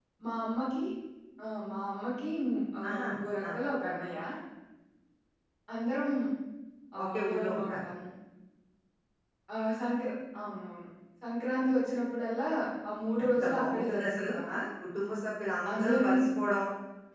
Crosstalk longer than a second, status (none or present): present